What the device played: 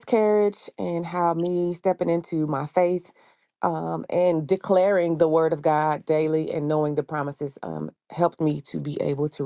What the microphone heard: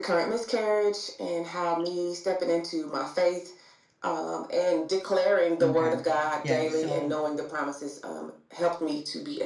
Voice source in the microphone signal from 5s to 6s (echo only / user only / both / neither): both